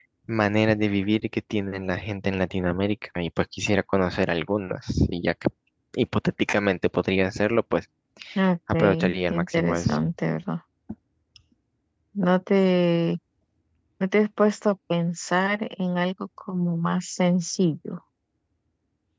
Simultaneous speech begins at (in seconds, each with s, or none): 8.7 s